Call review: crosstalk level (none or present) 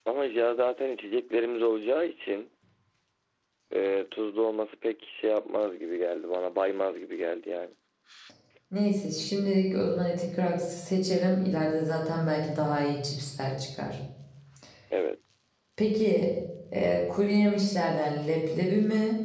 none